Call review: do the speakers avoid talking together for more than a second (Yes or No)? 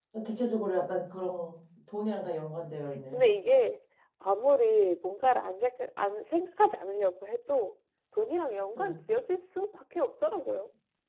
Yes